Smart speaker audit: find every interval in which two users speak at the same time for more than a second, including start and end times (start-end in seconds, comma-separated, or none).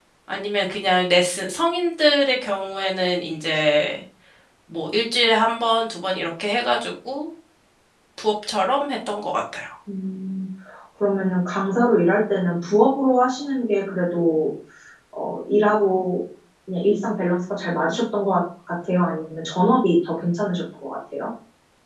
none